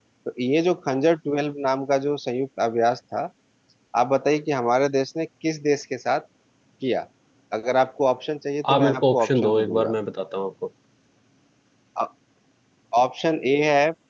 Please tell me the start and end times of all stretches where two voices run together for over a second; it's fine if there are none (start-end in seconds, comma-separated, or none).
8.7-9.9